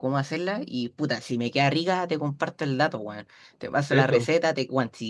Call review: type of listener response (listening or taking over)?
listening